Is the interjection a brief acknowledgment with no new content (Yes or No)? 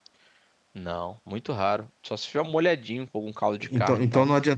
No